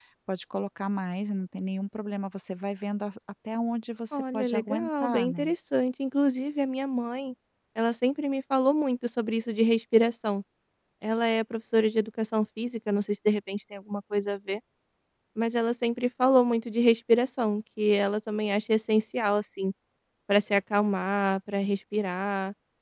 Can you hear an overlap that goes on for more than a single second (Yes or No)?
Yes